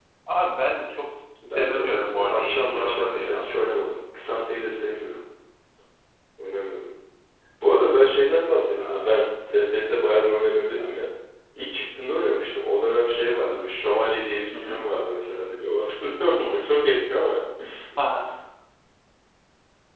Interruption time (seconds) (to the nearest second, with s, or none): 1 s